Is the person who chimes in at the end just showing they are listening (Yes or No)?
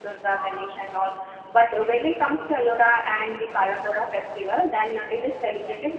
Yes